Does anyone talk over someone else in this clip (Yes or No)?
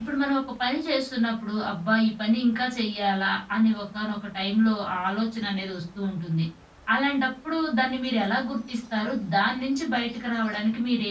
No